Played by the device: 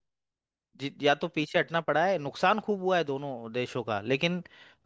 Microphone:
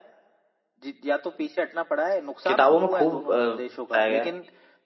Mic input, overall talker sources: both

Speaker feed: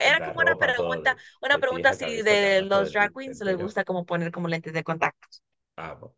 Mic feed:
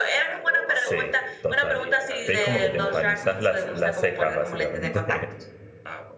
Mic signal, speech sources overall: both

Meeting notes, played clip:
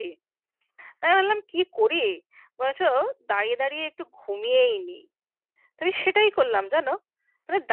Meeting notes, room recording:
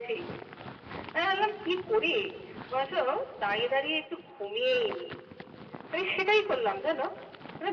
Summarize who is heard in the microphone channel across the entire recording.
echo only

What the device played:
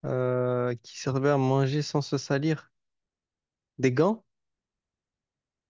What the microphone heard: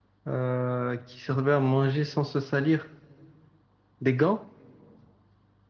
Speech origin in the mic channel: echo only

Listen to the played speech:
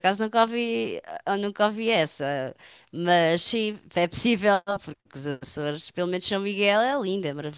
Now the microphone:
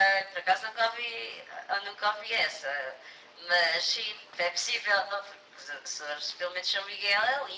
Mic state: echo only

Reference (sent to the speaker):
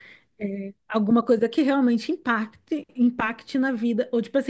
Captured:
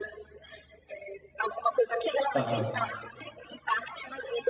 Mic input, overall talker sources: both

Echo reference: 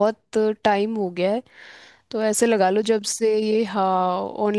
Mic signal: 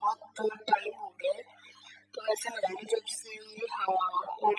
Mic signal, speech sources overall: echo only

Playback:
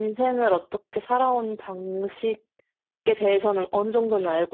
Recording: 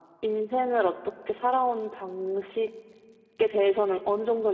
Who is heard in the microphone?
echo only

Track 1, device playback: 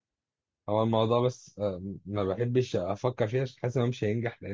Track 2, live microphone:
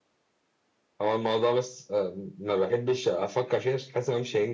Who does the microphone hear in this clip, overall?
echo only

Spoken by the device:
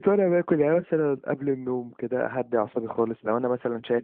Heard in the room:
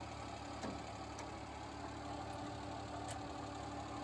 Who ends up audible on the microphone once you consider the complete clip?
neither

